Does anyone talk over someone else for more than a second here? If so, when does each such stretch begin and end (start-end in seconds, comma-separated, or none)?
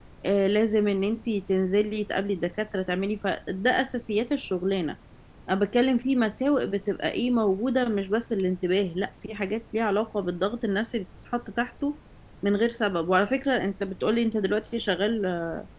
none